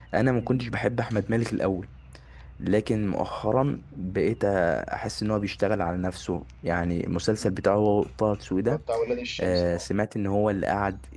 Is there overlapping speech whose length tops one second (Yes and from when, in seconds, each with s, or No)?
No